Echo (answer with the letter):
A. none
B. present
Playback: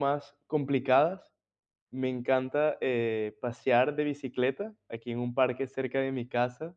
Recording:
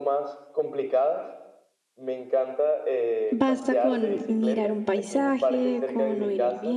B